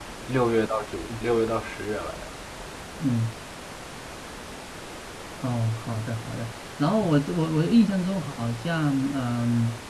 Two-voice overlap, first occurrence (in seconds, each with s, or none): none